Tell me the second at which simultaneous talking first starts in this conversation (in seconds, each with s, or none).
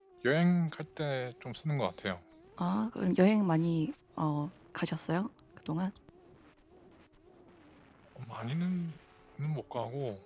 none